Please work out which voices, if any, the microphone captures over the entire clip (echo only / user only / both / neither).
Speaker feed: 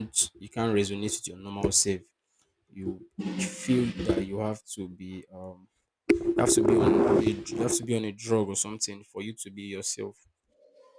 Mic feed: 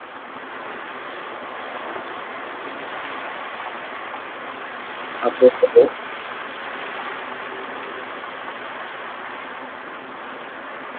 user only